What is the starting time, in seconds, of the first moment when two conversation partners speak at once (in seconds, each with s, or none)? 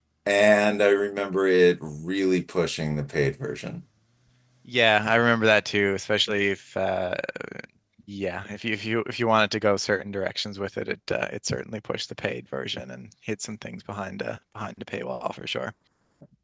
none